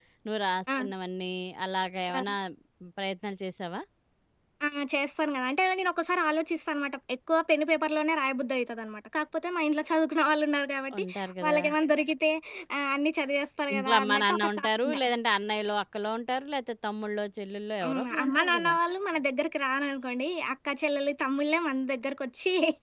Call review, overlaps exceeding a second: present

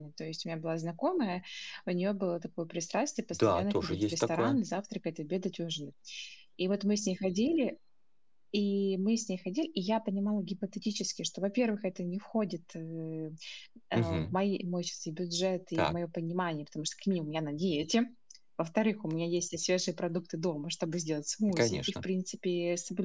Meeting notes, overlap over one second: present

